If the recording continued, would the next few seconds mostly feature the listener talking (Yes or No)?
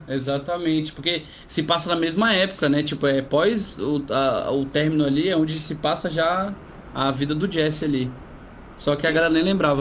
No